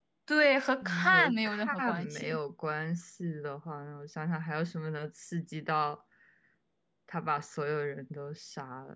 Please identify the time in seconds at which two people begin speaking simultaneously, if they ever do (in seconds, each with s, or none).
0.8 s